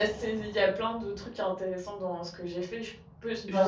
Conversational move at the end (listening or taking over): listening